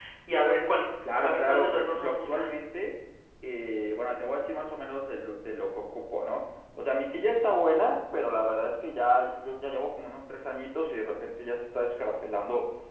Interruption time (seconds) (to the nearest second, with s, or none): 1 s